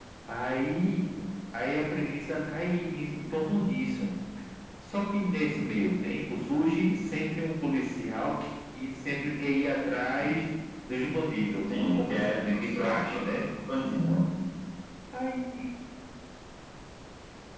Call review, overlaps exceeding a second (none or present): present